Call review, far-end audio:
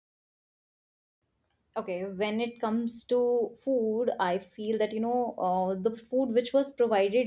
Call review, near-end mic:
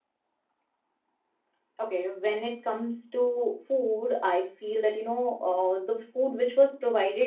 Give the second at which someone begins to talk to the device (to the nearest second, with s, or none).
none